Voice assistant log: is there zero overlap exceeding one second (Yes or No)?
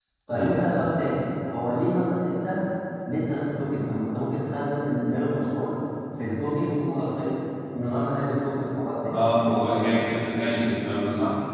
Yes